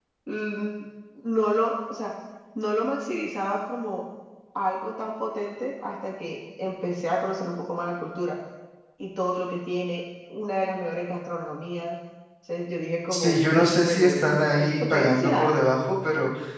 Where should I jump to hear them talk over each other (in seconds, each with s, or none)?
13.1 s